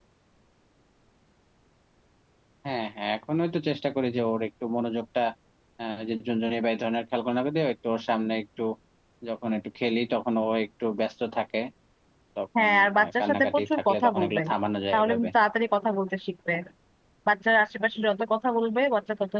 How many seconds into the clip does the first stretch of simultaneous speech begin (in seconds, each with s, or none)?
12.6 s